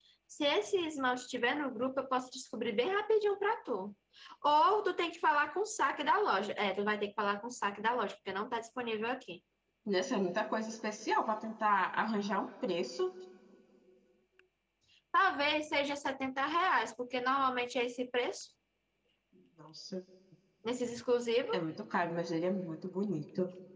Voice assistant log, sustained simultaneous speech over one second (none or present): none